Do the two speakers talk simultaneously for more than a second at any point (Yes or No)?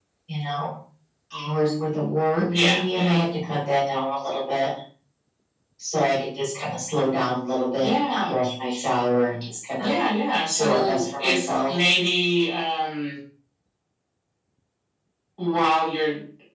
Yes